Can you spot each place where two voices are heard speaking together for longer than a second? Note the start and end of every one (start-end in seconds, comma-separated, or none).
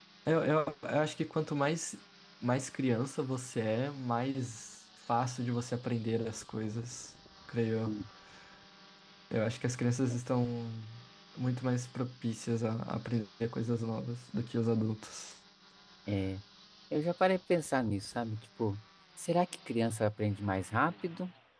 none